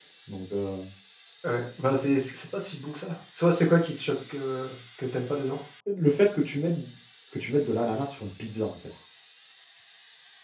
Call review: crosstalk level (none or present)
none